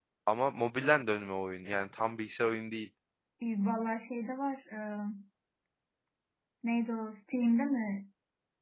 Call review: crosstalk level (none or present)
none